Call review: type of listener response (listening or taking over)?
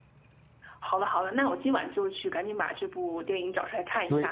taking over